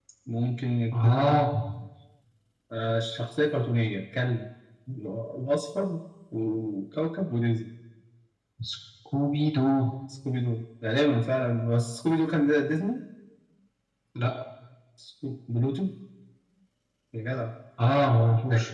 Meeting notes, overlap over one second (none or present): none